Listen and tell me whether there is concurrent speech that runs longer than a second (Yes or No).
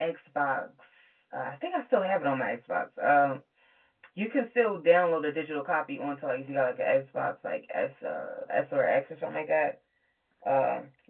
No